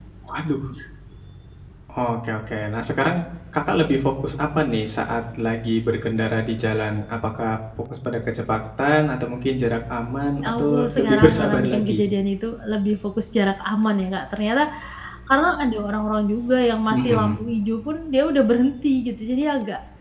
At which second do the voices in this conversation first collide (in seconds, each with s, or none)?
10.4 s